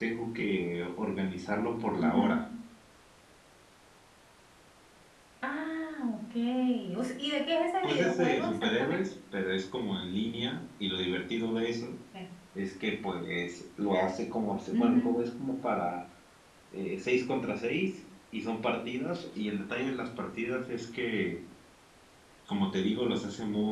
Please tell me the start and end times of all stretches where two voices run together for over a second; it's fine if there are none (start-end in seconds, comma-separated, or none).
7.8-9.1